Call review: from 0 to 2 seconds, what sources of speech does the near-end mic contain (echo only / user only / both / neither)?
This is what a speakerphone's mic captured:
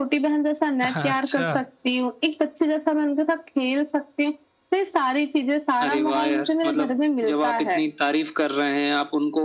both